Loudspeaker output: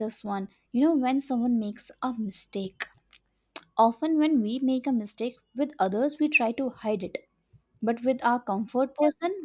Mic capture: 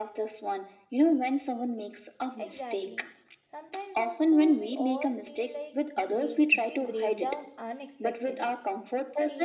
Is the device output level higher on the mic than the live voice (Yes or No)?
Yes